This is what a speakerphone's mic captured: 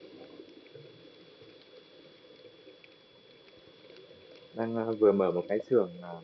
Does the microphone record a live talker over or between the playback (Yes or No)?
Yes